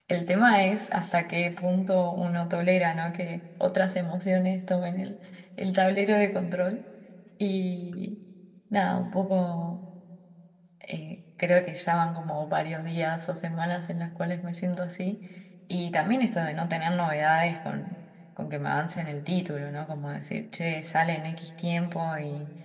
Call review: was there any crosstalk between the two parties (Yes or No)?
No